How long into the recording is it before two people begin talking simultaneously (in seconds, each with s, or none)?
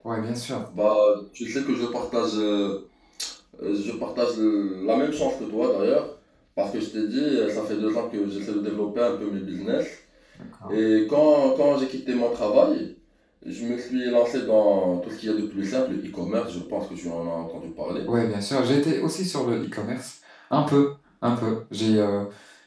none